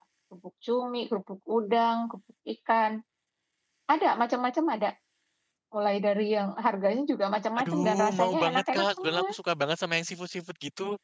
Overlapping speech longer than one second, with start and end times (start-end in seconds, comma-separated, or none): 7.6-9.3